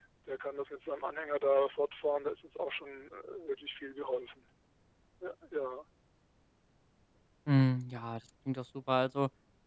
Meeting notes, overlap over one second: none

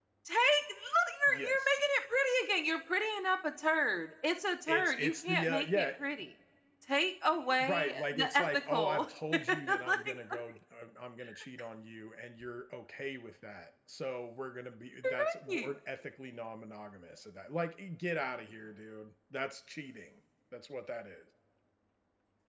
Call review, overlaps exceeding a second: present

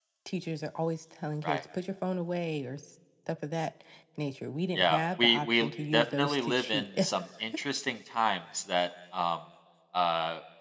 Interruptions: present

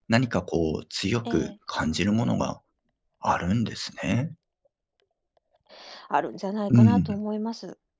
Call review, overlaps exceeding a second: none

